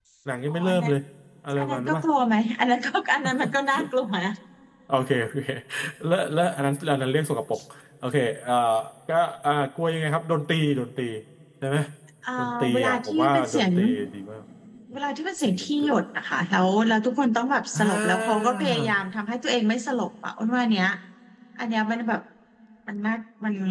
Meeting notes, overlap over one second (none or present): present